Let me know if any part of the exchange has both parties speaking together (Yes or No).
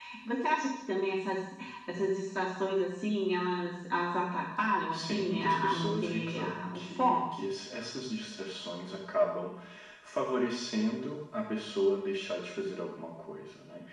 Yes